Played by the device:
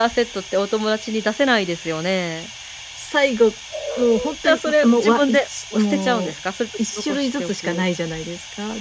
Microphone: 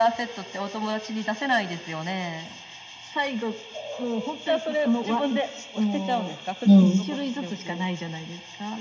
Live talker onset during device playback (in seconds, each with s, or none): 6.6 s